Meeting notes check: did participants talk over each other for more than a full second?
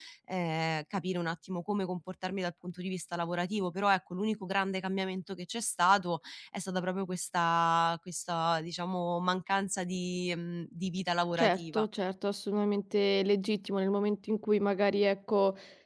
No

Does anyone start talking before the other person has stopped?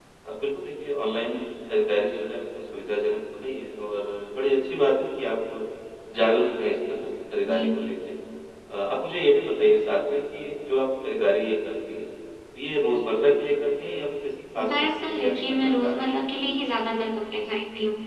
Yes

